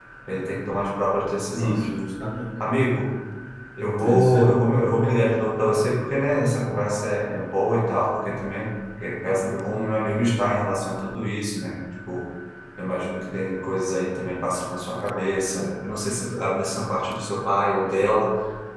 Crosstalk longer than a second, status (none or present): none